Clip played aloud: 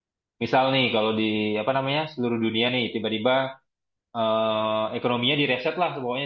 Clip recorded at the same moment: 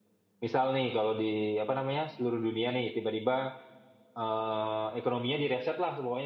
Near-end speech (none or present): none